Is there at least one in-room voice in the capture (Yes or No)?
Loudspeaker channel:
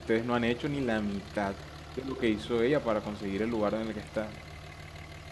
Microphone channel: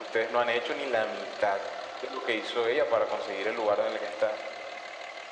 No